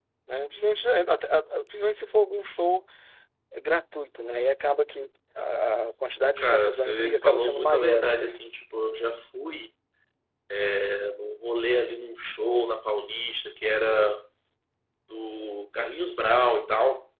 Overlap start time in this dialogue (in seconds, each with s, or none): 6.2 s